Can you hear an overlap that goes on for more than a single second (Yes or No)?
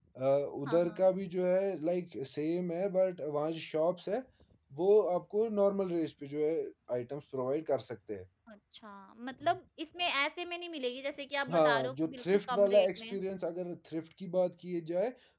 Yes